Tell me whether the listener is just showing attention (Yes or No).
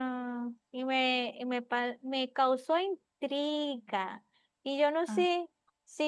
Yes